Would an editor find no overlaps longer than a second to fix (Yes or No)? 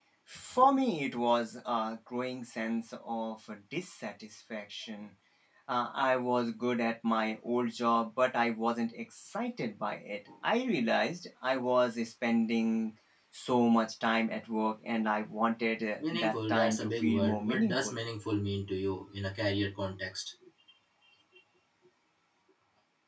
No